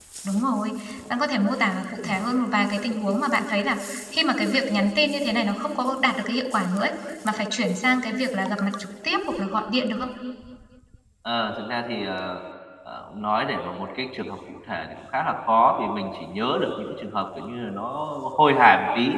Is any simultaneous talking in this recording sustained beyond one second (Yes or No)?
No